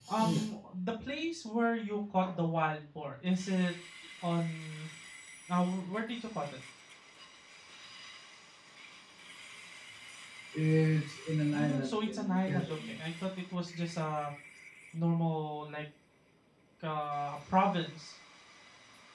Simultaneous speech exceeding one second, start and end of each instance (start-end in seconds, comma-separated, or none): 11.5-12.9